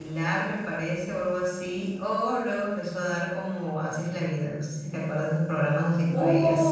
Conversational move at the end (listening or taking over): taking over